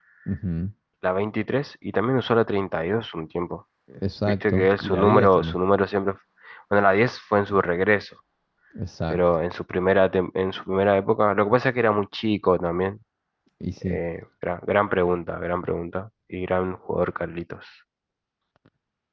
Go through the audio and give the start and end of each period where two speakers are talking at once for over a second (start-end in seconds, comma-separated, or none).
4.3-5.6